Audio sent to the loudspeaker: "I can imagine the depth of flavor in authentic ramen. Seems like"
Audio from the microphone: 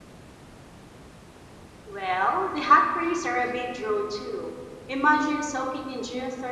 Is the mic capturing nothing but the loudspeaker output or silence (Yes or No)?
No